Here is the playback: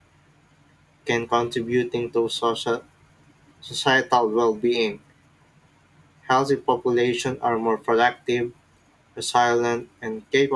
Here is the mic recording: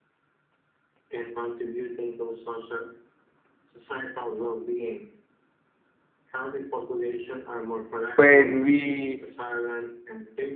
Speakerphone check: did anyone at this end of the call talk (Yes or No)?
Yes